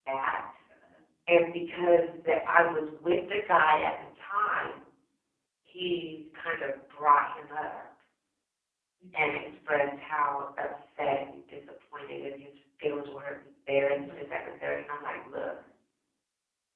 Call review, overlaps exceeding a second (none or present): none